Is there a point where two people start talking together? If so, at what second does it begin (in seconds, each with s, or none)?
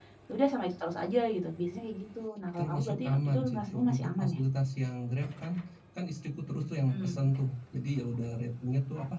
2.6 s